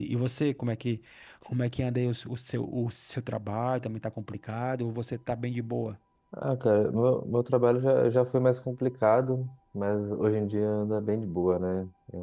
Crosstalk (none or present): none